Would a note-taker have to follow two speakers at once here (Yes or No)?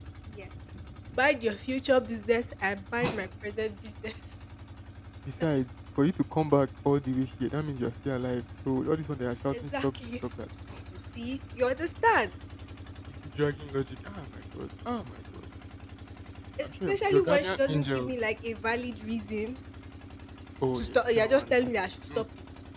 Yes